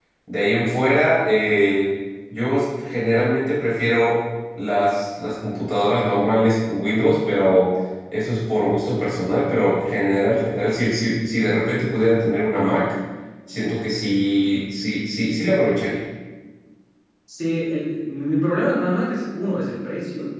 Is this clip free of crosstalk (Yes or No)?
Yes